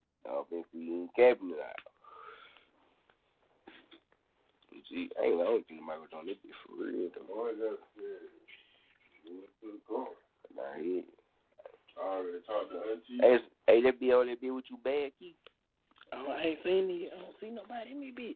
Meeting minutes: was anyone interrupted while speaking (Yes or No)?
No